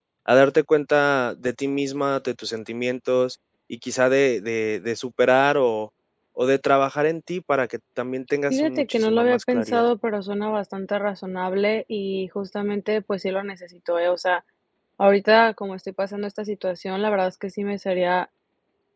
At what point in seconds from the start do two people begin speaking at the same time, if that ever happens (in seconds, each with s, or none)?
8.5 s